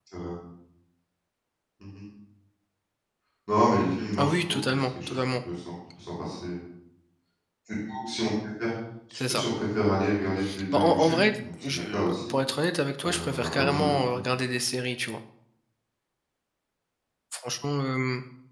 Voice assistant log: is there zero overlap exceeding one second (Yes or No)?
No